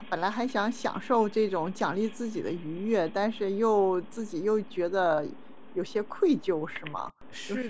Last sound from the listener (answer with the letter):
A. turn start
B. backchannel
A